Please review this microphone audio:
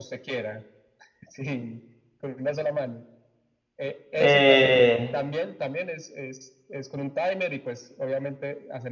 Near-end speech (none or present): present